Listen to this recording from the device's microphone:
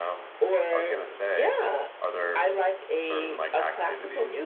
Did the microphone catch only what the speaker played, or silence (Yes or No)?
No